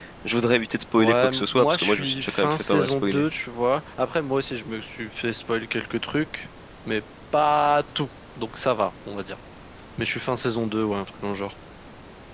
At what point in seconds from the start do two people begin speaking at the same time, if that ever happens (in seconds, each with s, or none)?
1.0 s